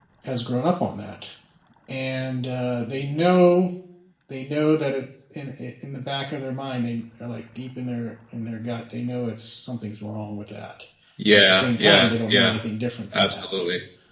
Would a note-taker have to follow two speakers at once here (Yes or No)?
Yes